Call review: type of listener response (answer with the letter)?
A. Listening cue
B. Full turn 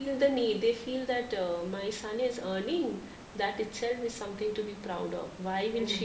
A